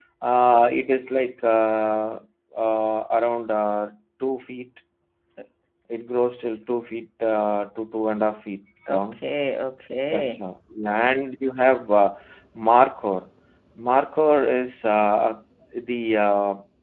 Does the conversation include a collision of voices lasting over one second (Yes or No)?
No